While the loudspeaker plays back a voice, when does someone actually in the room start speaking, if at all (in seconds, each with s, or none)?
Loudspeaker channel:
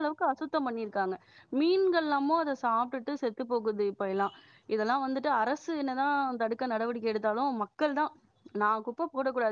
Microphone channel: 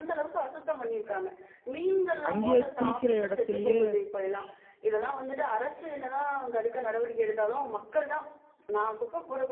2.3 s